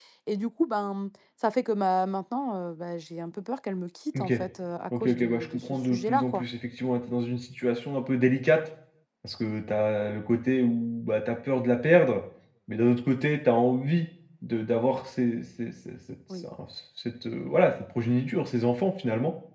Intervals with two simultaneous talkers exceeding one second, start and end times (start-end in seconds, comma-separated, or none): 5.0-6.4